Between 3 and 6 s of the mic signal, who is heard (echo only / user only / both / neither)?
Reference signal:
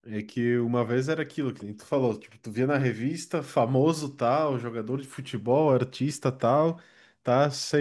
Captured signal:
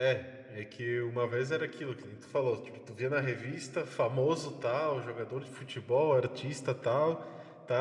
echo only